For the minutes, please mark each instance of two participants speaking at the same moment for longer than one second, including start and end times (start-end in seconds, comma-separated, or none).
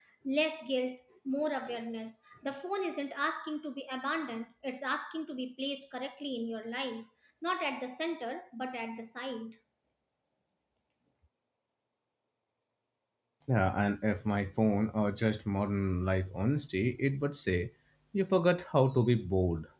none